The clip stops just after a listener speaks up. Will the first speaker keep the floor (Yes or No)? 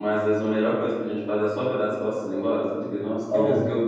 No